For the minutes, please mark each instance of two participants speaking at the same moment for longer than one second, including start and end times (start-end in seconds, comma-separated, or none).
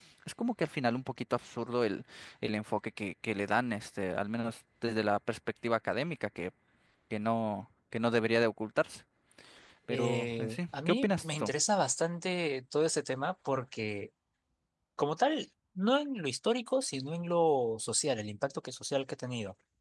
9.9-11.5